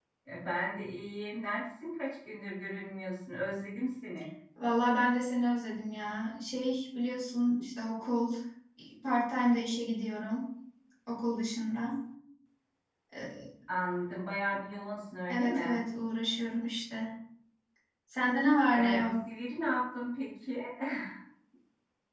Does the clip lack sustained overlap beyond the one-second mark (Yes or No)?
Yes